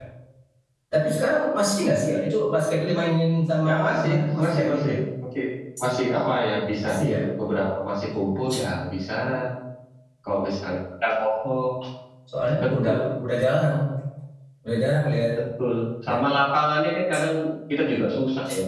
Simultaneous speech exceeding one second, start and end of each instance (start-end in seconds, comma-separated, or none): 3.6-5.0